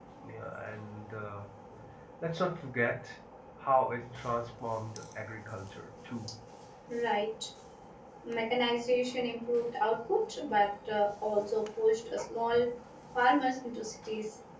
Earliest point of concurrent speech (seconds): none

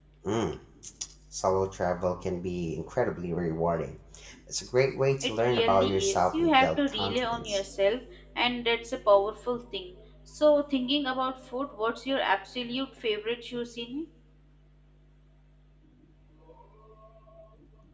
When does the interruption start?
5.2 s

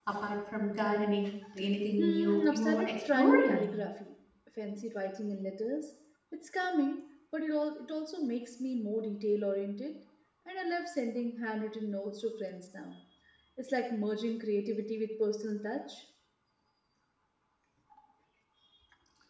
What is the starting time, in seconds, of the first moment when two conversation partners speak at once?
2.0 s

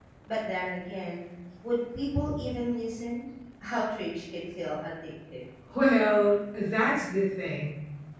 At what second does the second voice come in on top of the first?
none

